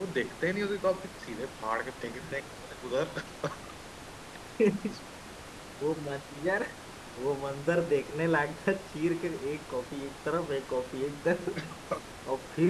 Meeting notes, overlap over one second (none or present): none